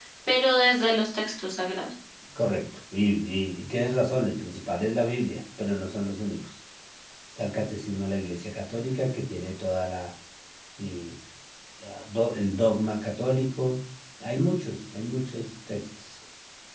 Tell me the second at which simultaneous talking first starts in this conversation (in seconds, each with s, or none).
none